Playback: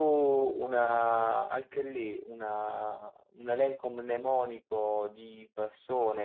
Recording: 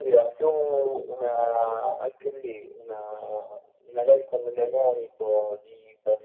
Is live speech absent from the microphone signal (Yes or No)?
Yes